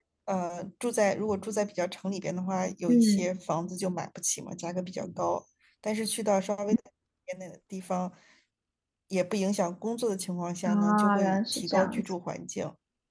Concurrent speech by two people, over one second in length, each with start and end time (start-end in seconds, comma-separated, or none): 10.7-12.0